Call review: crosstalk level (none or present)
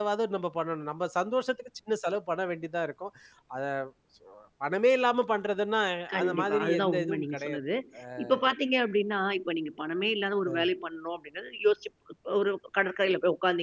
present